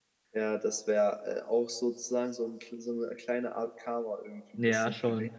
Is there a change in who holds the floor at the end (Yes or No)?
Yes